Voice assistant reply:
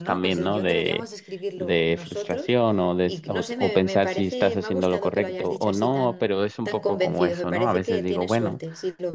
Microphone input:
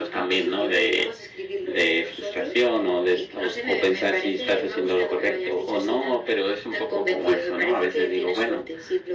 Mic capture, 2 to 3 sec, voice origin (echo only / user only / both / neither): echo only